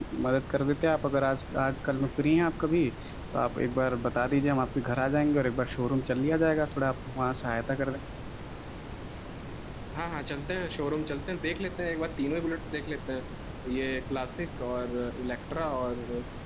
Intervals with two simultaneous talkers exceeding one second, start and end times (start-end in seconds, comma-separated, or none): none